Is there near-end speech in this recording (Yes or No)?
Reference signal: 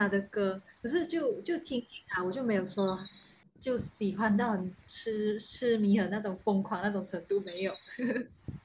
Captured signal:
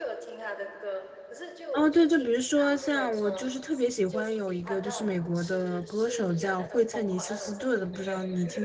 Yes